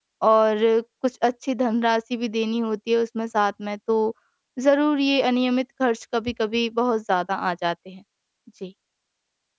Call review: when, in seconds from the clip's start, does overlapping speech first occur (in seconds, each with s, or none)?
none